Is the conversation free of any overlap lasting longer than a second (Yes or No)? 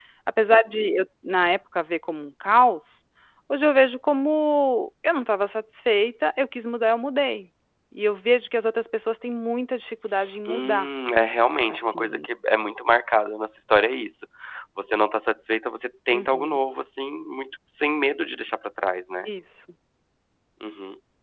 Yes